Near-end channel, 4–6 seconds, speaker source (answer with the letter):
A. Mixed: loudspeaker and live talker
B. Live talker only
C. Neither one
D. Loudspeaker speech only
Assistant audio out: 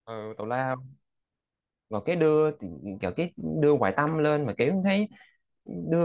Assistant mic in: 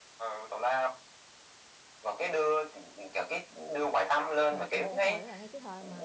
A